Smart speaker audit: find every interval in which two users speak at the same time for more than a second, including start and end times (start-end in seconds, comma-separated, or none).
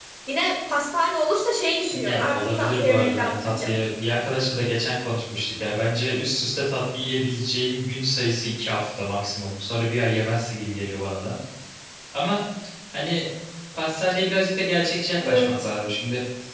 1.9-3.8